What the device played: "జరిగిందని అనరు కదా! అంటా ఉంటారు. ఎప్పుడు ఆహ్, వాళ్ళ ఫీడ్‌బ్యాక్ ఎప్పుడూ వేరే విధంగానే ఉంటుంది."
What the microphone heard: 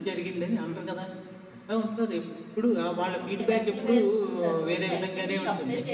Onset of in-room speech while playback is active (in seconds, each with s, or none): 3.2 s